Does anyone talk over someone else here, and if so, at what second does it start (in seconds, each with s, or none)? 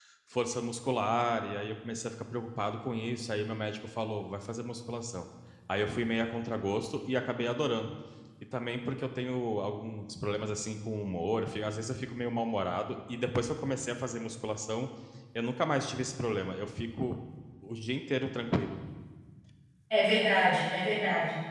none